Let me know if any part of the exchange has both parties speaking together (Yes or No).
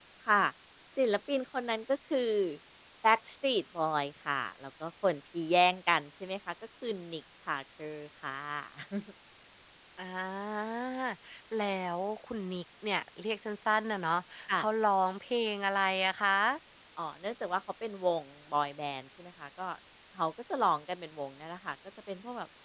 No